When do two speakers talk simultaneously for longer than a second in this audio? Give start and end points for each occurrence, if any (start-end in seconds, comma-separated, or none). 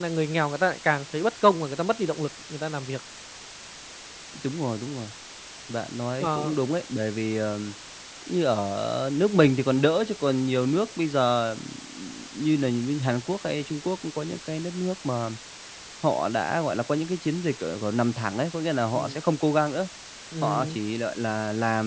none